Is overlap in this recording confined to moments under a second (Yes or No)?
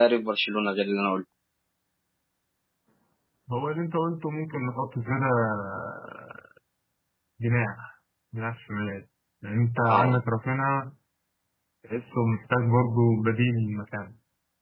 Yes